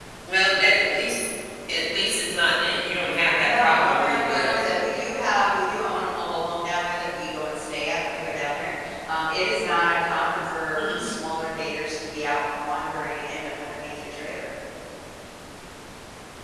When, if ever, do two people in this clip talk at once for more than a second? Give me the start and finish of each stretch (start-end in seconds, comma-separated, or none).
3.4-4.6